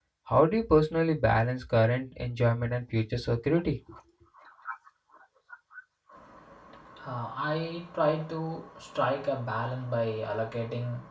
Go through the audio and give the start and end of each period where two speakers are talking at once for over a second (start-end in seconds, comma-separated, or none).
none